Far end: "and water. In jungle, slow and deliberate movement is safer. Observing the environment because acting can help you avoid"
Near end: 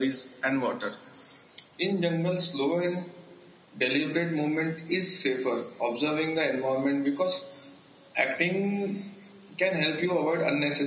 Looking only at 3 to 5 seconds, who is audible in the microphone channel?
echo only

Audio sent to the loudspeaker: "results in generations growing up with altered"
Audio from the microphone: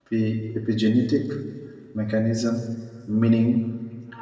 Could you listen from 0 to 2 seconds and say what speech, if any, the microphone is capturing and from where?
user only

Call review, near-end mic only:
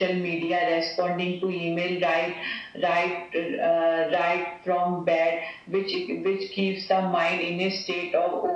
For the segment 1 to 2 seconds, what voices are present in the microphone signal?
echo only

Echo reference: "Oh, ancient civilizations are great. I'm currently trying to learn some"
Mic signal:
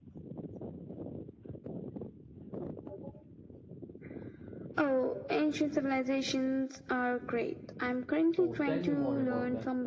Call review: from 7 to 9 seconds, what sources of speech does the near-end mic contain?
both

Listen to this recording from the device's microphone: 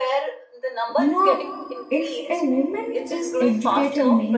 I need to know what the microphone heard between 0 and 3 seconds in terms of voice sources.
both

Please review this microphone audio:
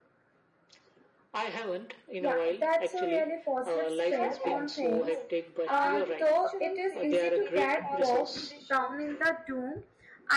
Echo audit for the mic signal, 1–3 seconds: both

